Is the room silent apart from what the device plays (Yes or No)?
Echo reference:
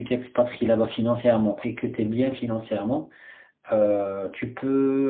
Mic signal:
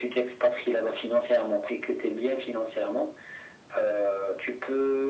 Yes